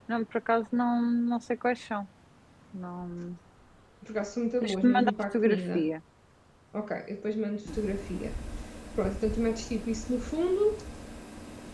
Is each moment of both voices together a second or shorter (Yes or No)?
No